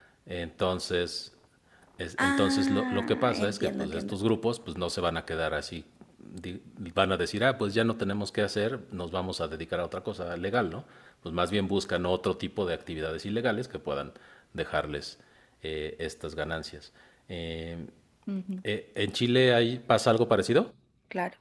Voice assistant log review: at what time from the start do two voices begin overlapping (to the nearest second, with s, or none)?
2 s